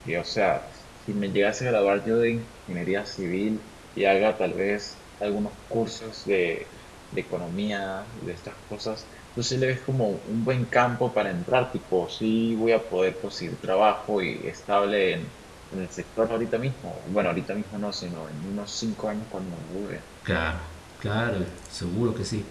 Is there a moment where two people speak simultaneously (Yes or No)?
No